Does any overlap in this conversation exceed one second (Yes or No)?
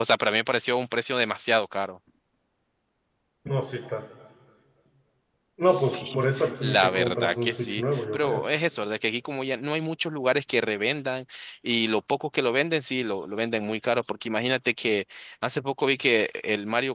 Yes